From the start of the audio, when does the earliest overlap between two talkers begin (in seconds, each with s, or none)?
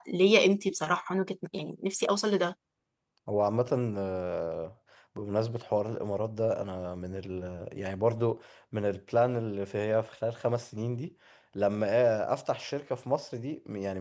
none